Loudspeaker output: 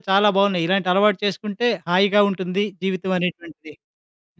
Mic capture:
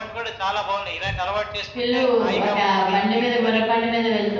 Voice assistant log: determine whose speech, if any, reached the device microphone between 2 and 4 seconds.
both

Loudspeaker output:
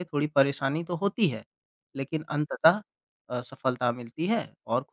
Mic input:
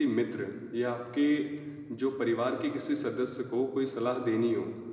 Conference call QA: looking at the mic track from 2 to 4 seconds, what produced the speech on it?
user only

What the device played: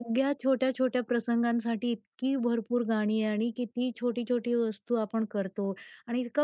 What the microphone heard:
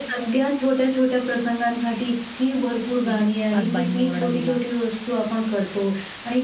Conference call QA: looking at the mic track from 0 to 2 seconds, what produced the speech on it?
echo only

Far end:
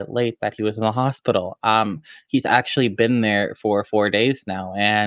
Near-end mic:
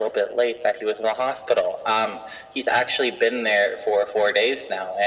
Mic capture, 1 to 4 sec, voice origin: echo only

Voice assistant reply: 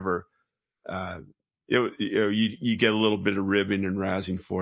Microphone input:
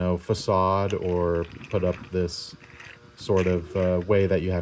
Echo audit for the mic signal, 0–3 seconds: user only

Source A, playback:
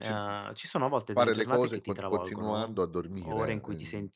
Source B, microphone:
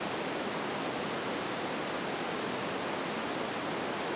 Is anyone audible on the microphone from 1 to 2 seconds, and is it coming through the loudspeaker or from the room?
neither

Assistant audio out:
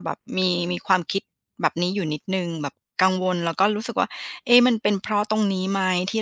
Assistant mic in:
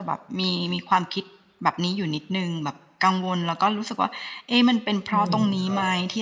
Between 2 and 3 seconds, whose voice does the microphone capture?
echo only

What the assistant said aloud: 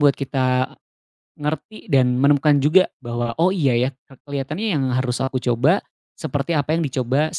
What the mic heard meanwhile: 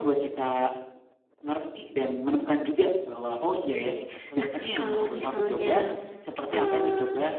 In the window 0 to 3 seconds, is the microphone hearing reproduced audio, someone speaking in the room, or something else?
echo only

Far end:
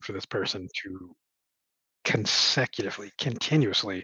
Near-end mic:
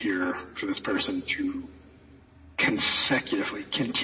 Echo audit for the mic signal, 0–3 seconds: echo only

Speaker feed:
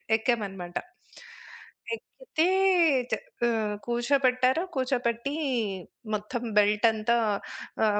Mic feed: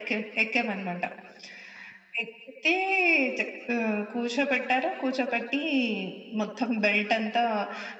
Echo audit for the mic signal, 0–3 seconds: echo only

